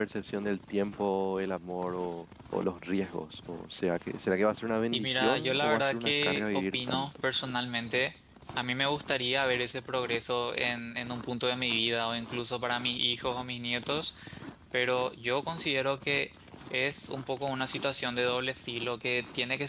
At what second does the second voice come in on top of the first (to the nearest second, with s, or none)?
5 s